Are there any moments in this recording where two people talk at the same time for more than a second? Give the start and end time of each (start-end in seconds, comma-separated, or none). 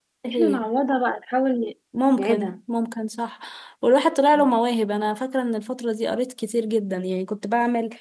none